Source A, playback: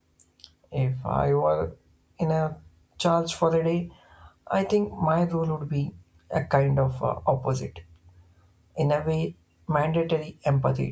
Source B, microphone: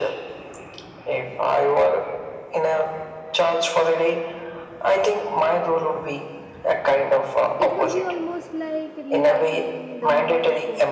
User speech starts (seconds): 8 s

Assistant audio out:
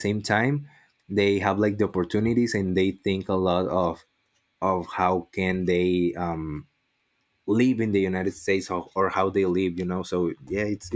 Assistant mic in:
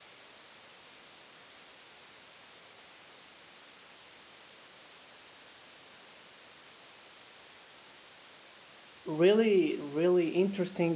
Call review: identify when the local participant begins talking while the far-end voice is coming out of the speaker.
9 s

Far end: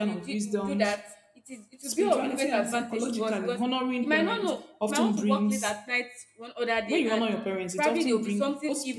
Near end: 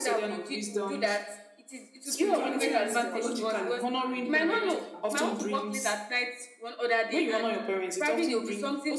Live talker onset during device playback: 2 s

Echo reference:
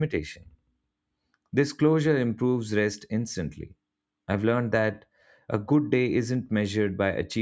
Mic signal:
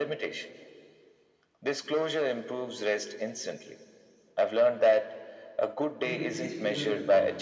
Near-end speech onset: 6 s

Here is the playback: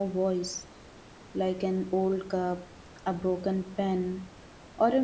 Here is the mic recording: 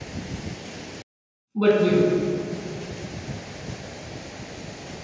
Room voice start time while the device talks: 2 s

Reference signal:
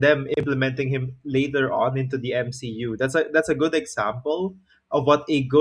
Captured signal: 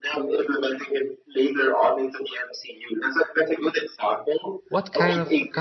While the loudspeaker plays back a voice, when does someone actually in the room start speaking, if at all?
5 s

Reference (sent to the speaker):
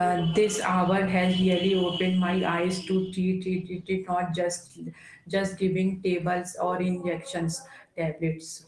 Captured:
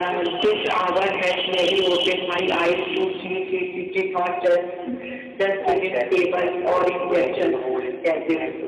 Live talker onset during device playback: 6 s

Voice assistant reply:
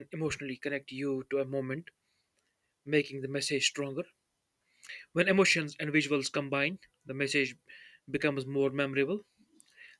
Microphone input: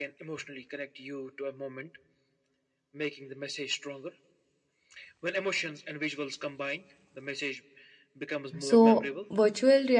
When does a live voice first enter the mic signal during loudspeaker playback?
9 s

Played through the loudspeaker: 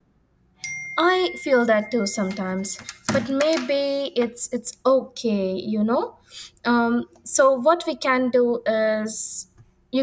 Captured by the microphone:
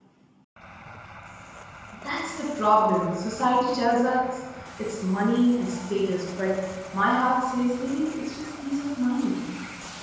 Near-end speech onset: 2 s

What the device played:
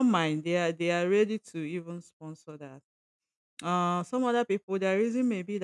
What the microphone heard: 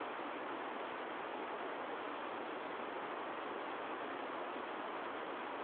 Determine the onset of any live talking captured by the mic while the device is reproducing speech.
none

